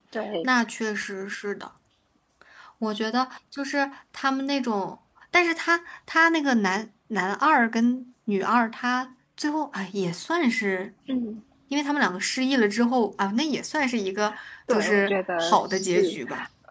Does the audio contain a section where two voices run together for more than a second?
Yes, from 14.7 s

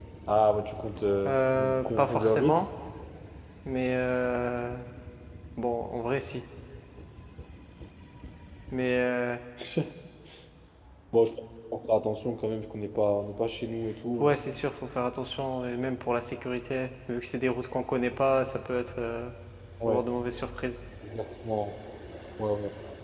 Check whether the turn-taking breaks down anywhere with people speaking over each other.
Yes, from 1.2 s

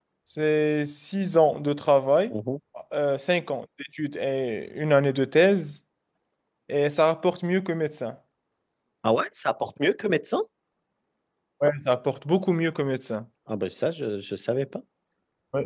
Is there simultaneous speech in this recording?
No

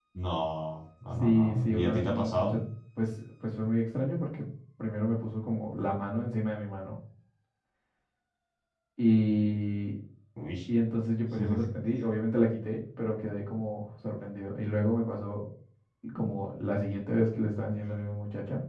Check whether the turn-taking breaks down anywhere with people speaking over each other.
Yes, from 1.2 s

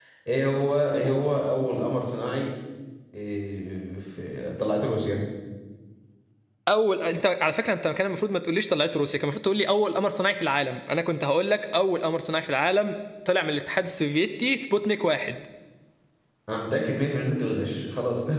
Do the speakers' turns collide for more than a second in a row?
No

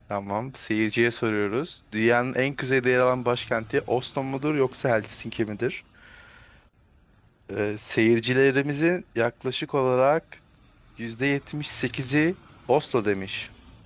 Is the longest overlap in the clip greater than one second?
No

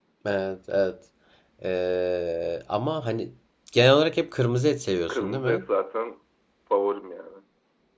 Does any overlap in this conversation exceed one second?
No

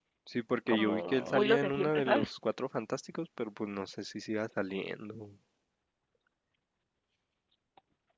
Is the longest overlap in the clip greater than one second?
Yes, from 0.7 s

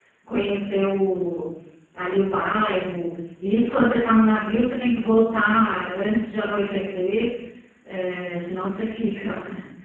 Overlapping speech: No

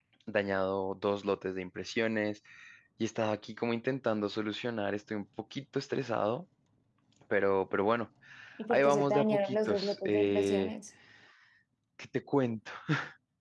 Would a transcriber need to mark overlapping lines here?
Yes, from 8.7 s

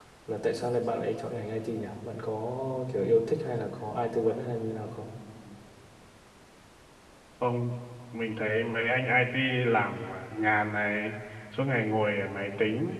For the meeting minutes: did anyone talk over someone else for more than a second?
No

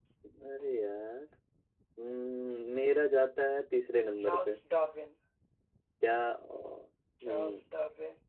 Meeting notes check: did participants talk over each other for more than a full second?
No

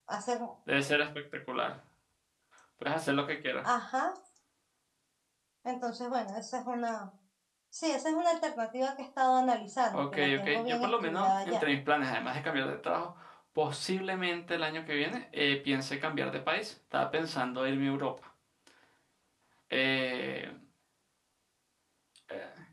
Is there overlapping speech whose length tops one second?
Yes, from 9.9 s

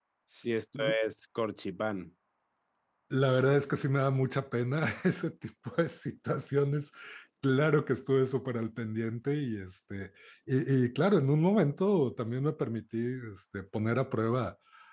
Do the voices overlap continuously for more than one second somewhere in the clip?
No

